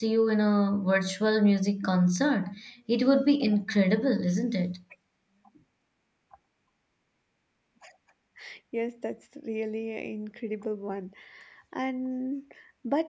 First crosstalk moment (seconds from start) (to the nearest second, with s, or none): none